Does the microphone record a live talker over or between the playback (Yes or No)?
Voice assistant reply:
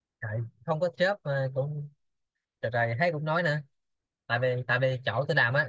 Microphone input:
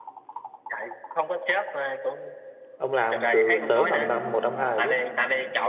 Yes